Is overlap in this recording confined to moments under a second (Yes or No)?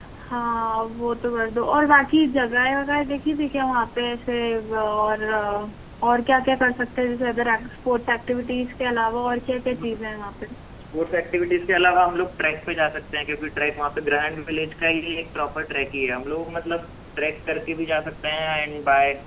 Yes